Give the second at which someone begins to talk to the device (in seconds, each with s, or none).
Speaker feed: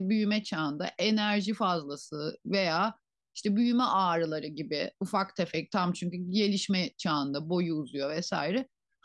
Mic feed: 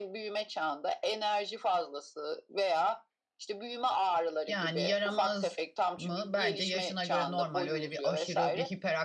4.5 s